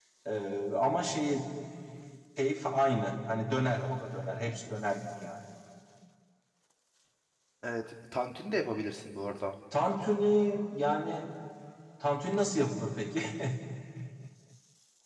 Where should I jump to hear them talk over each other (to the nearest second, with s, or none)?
none